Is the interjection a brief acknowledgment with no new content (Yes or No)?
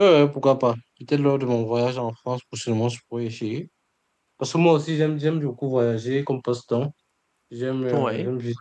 Yes